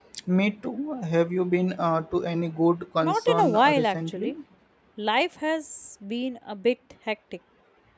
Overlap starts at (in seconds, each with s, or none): 3.0 s